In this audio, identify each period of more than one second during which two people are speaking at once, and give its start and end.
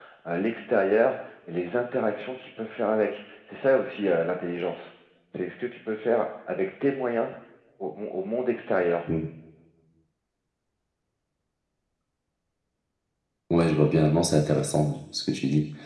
none

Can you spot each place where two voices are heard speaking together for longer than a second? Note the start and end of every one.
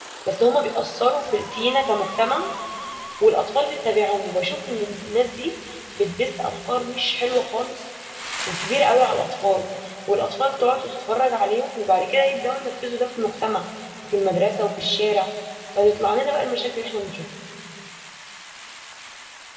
none

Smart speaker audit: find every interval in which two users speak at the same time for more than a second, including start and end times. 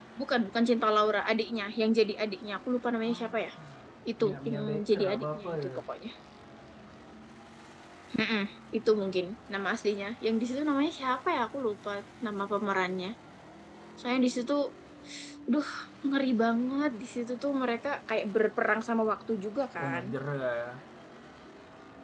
4.2-5.8

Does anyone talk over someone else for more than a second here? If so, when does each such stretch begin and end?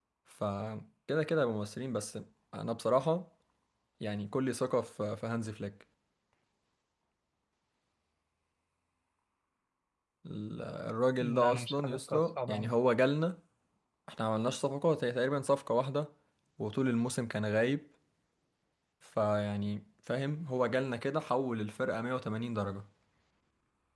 11.2-12.8

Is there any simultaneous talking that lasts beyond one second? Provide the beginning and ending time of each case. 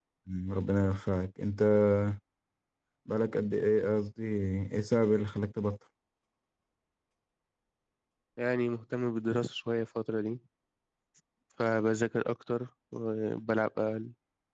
none

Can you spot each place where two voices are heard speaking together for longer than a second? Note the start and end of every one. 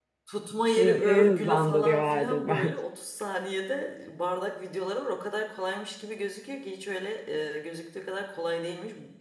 0.8-2.8

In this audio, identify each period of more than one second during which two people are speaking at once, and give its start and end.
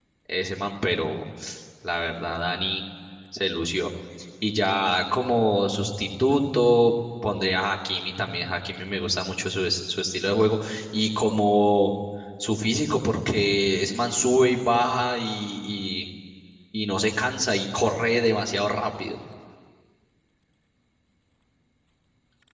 none

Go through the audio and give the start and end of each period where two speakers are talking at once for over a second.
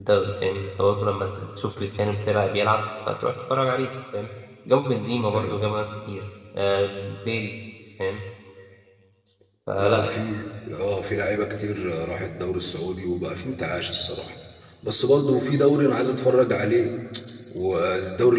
none

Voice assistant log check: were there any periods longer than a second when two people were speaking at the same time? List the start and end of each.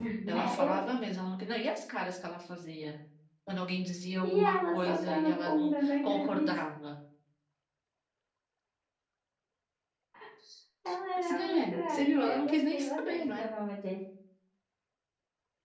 4.2-6.5, 11.2-13.5

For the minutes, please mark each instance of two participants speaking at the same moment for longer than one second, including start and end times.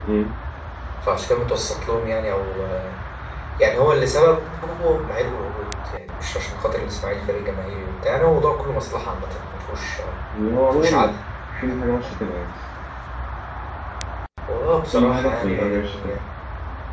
14.9-16.2

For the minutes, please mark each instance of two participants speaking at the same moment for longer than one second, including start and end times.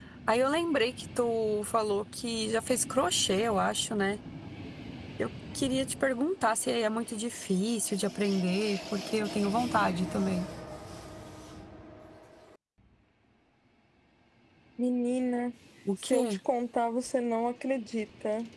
none

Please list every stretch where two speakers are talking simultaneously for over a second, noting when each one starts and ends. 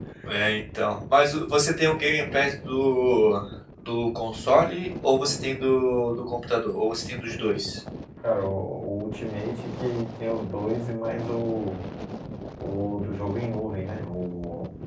none

